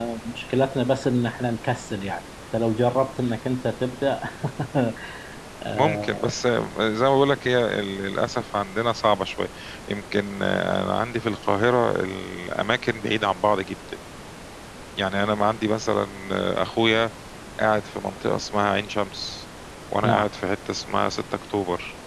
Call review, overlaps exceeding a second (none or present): none